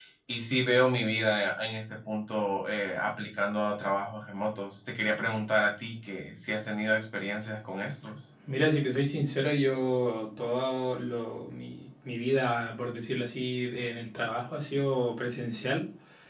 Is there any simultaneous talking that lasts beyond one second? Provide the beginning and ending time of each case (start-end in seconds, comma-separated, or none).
none